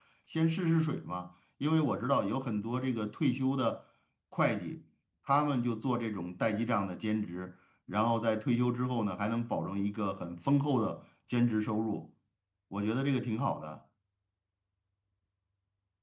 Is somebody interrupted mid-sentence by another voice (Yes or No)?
No